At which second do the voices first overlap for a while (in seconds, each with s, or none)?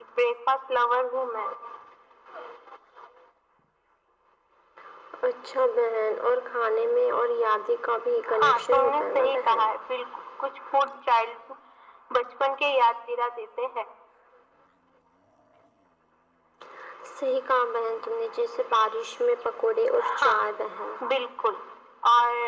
8.3 s